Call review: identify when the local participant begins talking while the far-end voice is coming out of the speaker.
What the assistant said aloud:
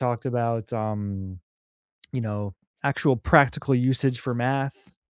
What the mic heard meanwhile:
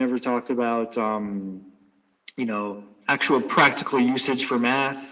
none

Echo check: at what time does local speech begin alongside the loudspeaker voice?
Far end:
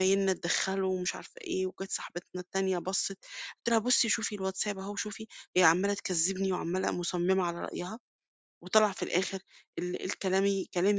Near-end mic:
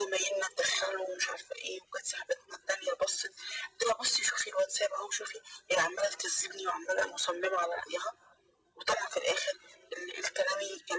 none

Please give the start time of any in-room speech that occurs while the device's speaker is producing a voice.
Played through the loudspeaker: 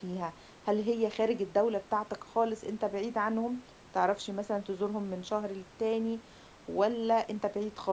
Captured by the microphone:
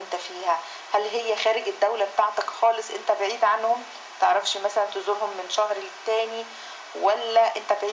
none

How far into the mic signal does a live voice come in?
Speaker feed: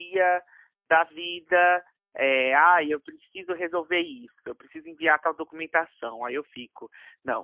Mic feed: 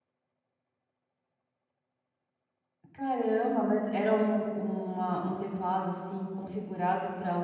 2.9 s

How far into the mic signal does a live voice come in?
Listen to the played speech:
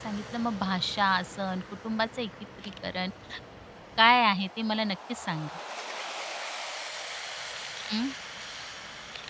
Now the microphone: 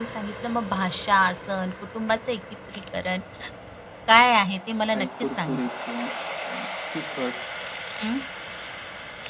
4.9 s

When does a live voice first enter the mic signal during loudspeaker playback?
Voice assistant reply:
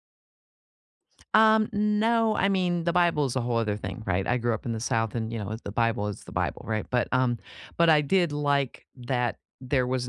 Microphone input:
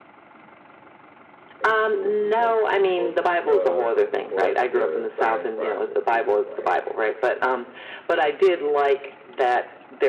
1.6 s

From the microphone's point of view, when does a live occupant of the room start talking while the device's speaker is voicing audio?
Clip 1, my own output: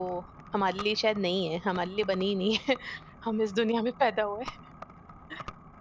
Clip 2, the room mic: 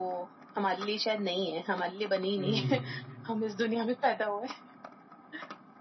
2.4 s

